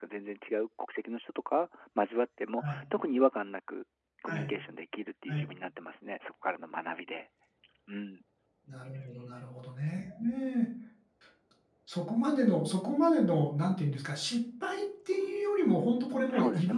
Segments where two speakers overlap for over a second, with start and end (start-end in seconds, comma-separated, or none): none